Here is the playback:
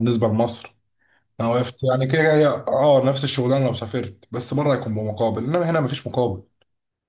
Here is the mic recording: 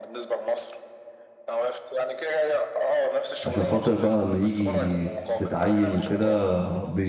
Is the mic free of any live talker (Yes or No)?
No